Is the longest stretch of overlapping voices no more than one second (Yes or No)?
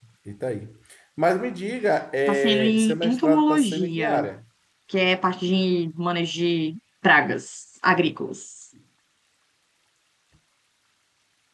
No